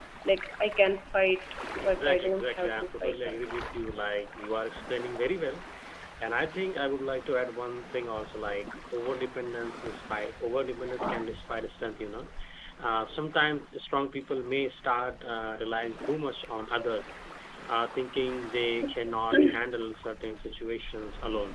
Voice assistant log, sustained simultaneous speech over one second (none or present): present